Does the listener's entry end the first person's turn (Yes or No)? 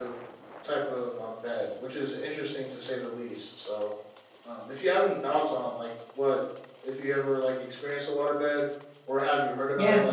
Yes